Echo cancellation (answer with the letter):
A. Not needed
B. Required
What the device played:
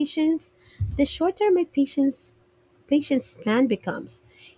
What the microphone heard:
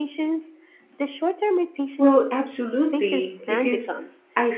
B